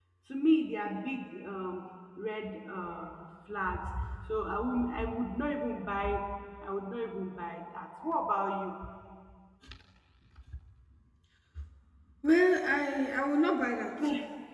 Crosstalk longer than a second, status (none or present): none